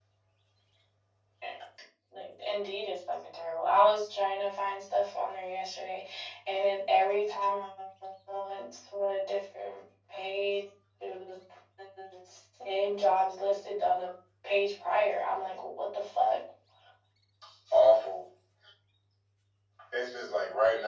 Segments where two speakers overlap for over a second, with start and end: none

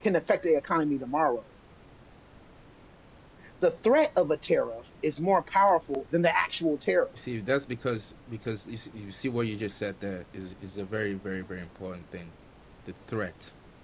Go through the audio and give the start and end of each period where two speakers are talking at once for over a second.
none

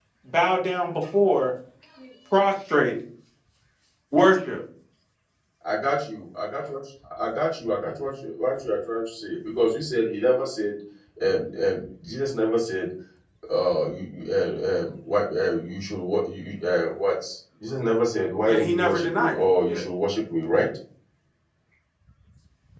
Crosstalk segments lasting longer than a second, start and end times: 18.4-19.8

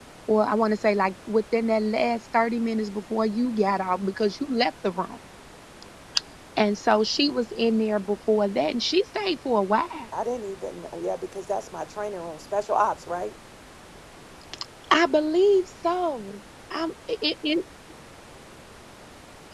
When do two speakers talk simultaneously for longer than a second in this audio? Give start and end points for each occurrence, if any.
none

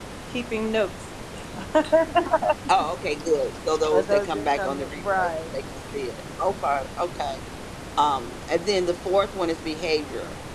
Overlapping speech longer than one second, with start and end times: 4.1-5.6

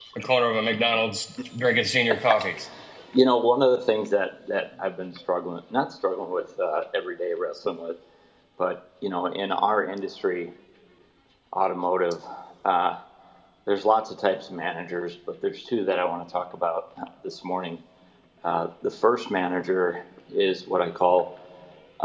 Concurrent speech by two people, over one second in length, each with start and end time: none

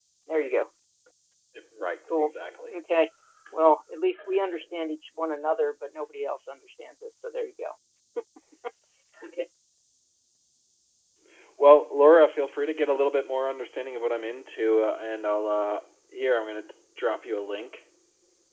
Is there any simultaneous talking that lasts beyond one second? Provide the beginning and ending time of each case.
none

